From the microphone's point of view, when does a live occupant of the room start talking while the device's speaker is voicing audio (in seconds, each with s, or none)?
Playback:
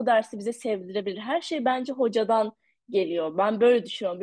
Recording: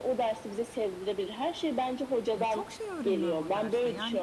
2.4 s